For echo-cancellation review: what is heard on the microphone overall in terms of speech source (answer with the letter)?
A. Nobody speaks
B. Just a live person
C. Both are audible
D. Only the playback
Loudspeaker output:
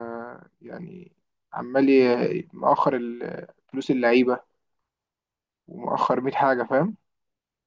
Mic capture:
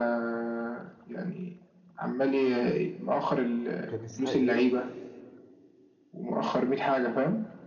C